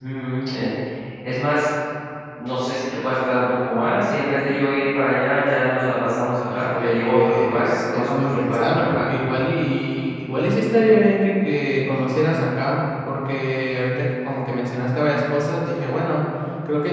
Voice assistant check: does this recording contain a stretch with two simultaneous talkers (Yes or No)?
Yes